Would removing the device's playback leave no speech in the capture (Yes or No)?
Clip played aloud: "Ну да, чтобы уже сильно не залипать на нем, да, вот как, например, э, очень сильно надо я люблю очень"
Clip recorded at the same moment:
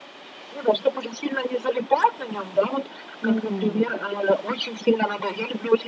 No